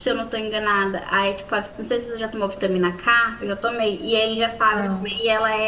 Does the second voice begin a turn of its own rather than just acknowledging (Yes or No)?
No